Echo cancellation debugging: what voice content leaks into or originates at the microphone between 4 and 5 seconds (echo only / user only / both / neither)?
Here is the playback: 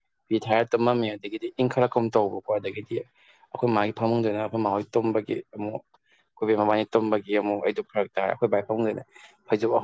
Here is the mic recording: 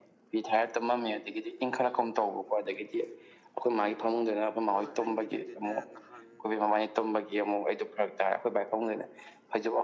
both